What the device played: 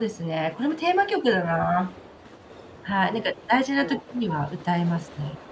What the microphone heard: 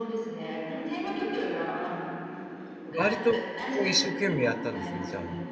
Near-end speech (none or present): present